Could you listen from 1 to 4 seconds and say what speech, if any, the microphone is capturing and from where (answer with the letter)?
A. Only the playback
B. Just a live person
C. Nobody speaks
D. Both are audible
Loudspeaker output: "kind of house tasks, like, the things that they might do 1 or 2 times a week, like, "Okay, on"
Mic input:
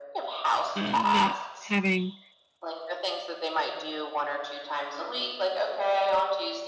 D